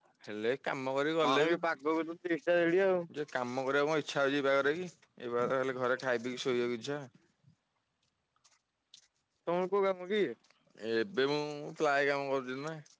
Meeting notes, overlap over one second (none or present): none